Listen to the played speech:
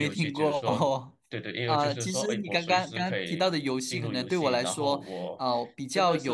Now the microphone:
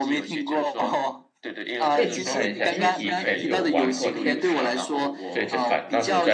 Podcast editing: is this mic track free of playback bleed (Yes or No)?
No